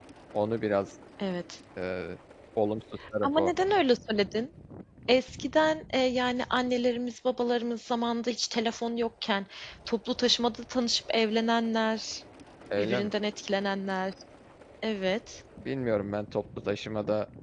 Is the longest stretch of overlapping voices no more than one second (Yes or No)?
Yes